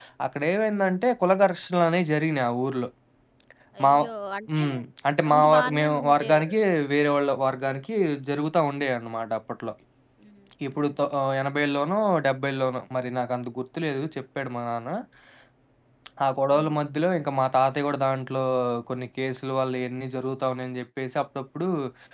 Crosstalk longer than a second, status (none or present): present